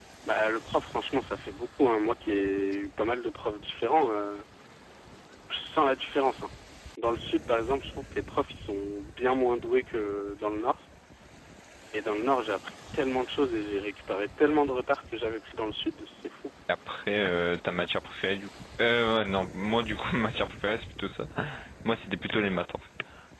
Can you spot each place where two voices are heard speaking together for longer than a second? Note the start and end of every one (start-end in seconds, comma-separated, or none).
none